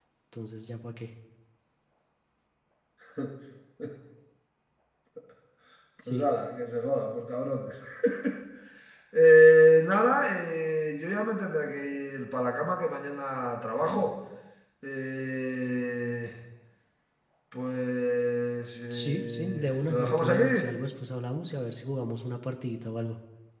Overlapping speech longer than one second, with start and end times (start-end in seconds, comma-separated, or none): 18.9-20.4